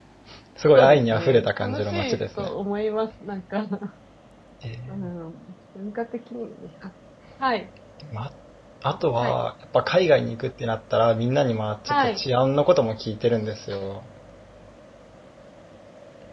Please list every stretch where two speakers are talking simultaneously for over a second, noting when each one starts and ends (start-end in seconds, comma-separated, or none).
0.7-2.5